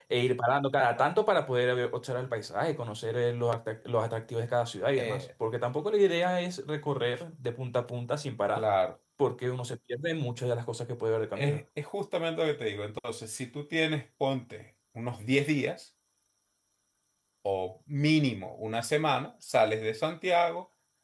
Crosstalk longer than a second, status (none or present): none